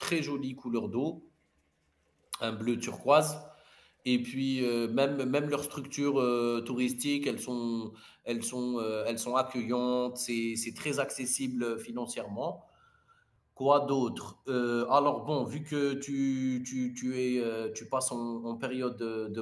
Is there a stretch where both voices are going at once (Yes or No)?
No